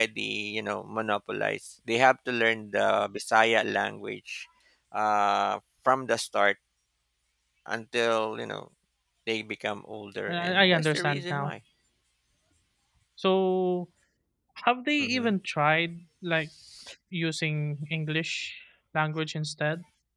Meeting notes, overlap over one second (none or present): present